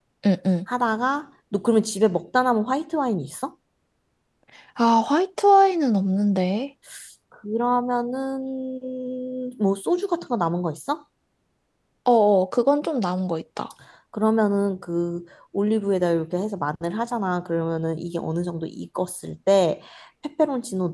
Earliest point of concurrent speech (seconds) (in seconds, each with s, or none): none